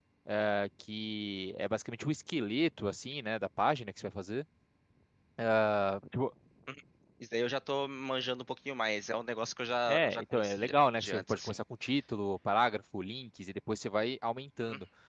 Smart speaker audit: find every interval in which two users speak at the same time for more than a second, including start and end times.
9.9-11.6

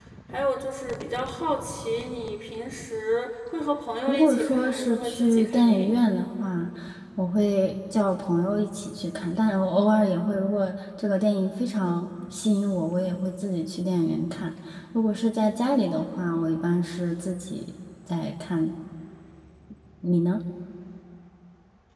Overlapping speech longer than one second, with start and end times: 4.1-6.0

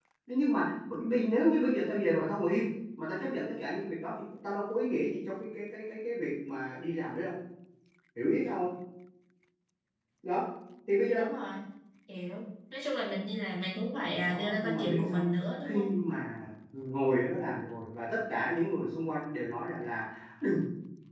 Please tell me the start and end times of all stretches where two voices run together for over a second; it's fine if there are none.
14.0-15.2

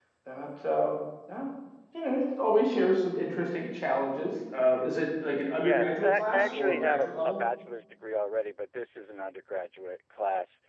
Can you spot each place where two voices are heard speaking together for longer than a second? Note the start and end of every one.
5.5-7.4

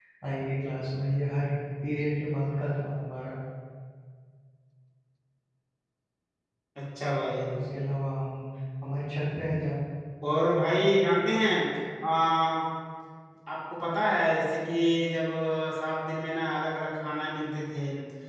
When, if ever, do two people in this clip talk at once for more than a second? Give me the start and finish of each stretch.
none

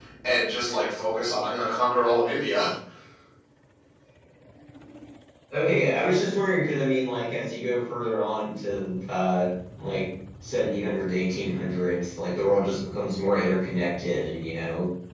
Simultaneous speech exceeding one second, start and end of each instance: none

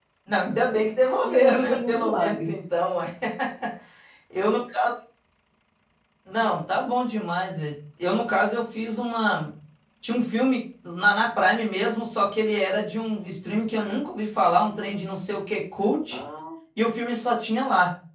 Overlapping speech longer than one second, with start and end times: 1.2-2.6

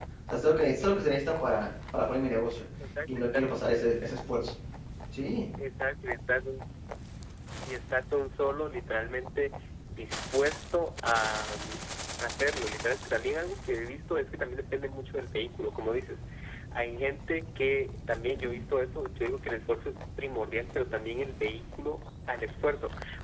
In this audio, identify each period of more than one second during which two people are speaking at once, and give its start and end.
none

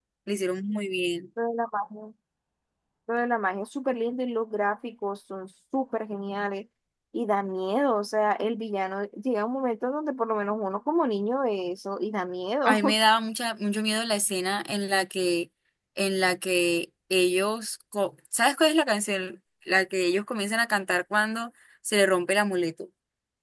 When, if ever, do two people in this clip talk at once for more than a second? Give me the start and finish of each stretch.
none

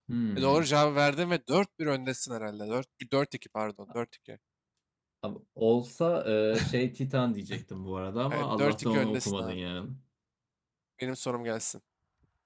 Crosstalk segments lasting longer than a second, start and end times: 8.3-9.6

